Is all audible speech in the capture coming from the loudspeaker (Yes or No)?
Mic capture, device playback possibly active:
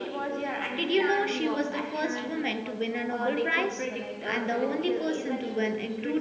No